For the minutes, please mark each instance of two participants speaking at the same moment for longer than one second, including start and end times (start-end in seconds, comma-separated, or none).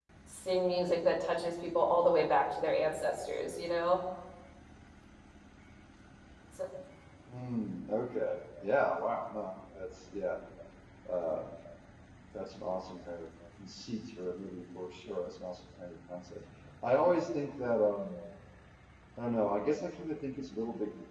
none